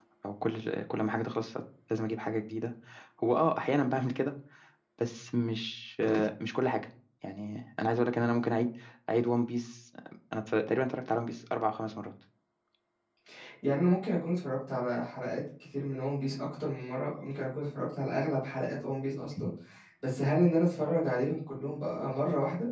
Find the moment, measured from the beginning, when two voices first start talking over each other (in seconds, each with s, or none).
none